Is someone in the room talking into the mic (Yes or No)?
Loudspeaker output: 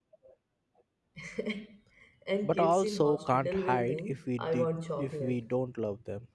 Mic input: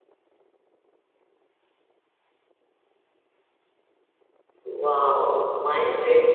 Yes